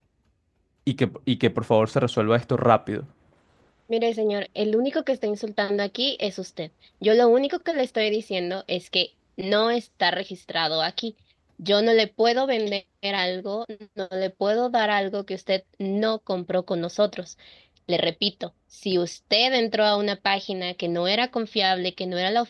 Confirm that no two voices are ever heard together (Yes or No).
Yes